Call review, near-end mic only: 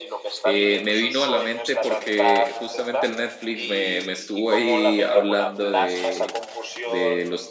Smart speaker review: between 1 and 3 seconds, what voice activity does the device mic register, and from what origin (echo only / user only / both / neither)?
both